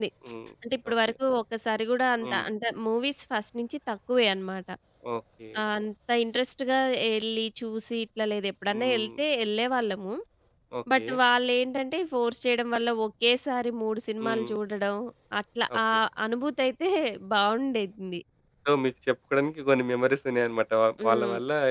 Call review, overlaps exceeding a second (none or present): none